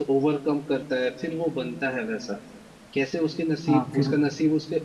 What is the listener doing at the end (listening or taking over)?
listening